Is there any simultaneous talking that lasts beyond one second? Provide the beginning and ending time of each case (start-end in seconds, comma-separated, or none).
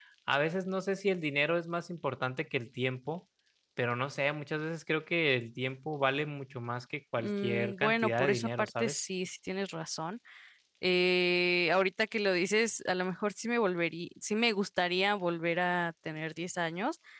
7.2-9.0